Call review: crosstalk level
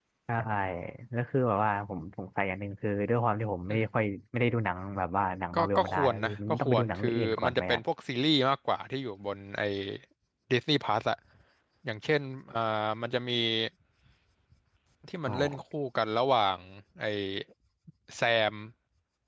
present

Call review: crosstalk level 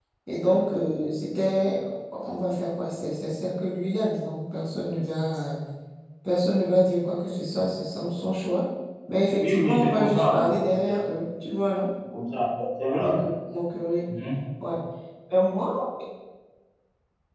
present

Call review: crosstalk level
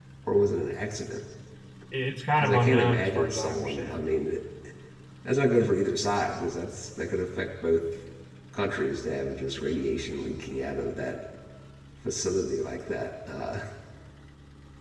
present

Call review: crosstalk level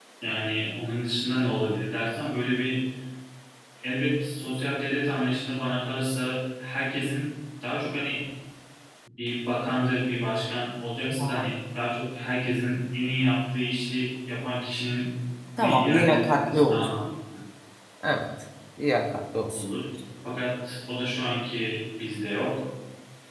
present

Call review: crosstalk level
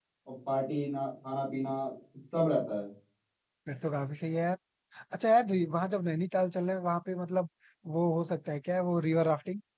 none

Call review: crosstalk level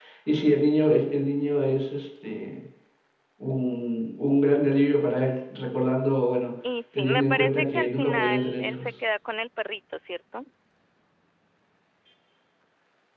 present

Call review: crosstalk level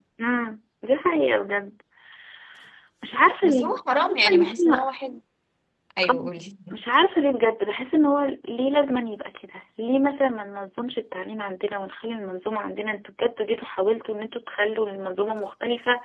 present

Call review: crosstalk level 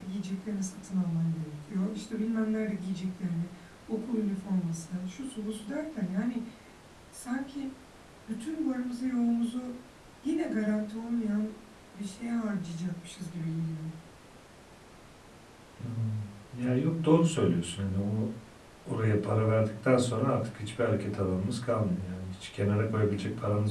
none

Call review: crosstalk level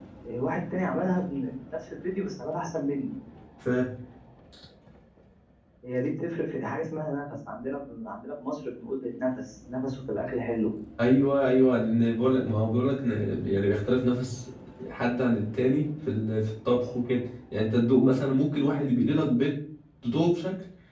none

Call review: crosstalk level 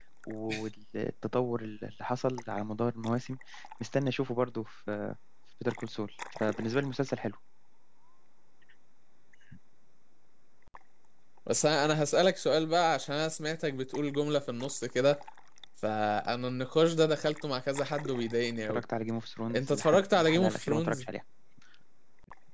present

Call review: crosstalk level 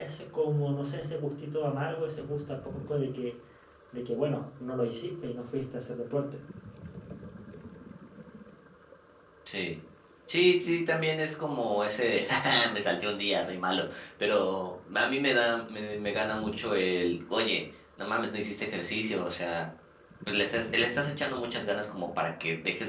none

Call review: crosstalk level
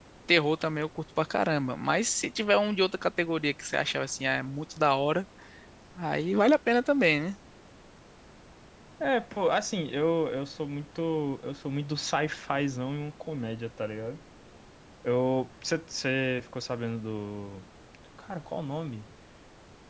none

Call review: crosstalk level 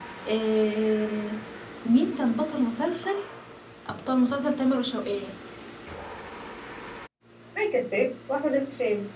none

